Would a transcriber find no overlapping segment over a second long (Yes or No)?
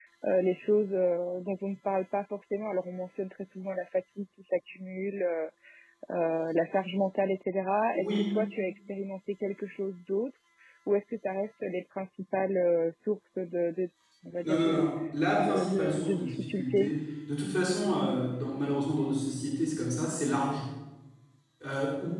No